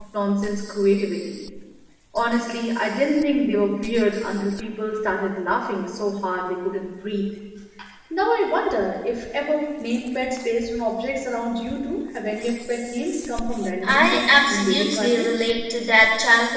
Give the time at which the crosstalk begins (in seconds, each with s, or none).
13.8 s